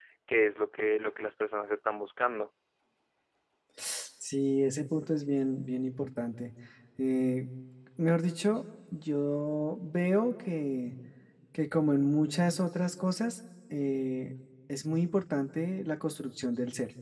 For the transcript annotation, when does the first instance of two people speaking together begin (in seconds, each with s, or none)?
none